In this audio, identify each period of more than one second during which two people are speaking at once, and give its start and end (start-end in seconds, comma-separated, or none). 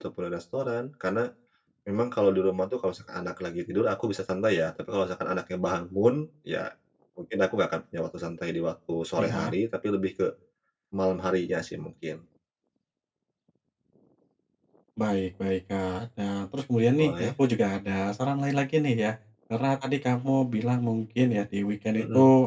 none